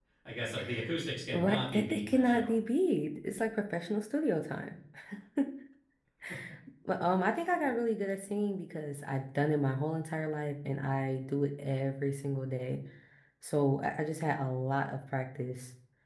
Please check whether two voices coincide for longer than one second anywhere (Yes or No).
Yes